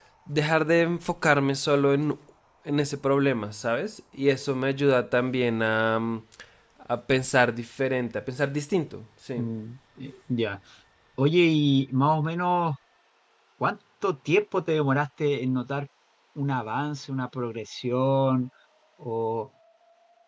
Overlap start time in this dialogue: none

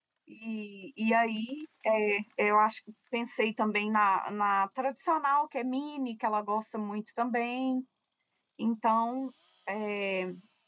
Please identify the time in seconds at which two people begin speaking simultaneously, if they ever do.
none

